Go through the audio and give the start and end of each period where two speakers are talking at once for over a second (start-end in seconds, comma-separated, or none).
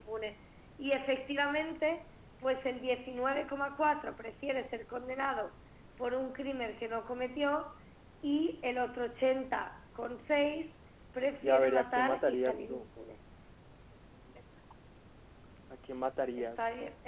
11.4-12.8